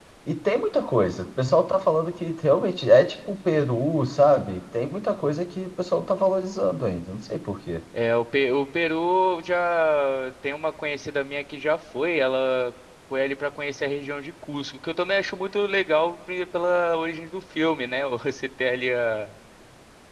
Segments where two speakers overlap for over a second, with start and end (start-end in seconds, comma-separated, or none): none